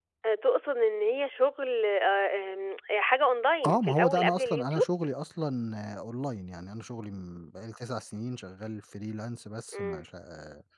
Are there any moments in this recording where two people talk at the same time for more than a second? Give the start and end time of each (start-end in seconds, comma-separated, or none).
3.6-4.8